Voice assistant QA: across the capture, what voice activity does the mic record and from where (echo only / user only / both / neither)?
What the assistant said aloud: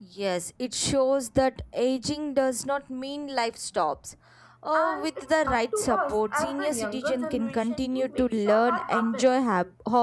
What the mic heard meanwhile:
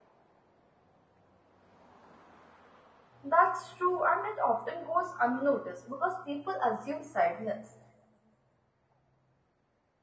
user only